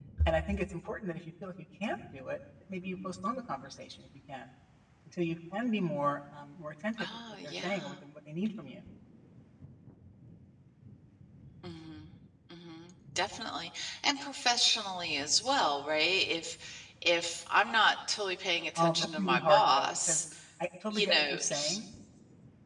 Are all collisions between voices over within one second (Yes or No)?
No